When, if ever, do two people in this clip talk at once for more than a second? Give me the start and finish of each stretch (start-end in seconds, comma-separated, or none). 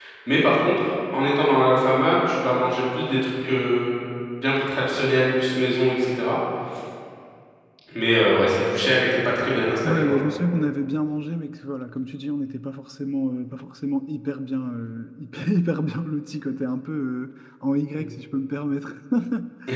none